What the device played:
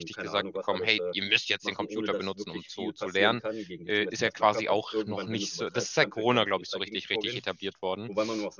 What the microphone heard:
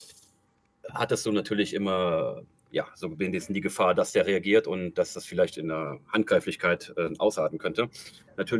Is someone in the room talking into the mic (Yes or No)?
Yes